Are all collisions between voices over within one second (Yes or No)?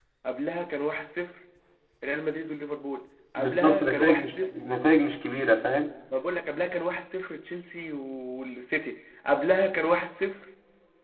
No